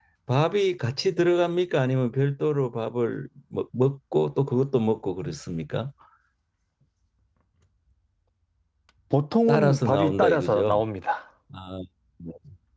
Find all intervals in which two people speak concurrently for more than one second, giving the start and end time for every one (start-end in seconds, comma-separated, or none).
9.5-10.8